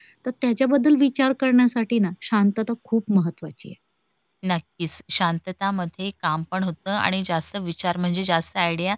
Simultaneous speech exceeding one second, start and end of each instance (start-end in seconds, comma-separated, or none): none